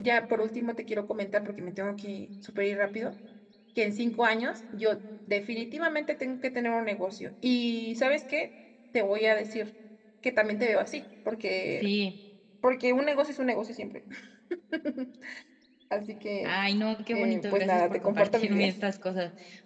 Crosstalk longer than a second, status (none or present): present